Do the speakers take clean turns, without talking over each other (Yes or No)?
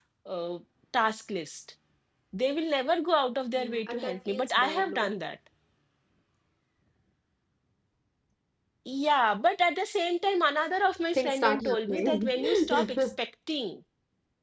No